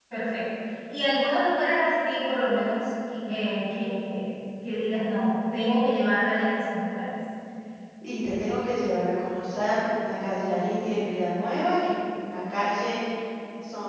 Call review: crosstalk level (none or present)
none